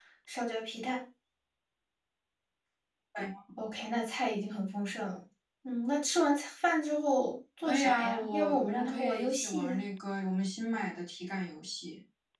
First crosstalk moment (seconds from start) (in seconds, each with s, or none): 7.7 s